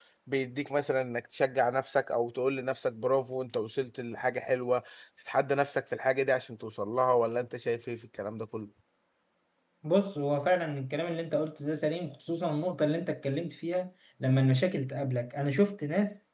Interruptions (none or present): none